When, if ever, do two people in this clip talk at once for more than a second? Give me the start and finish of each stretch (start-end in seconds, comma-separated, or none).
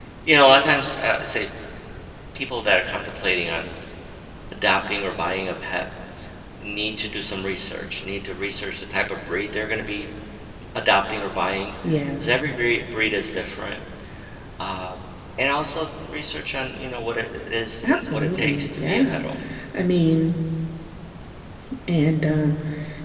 17.8-19.2